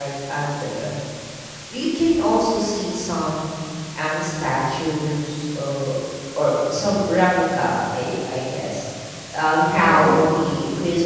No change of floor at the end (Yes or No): Yes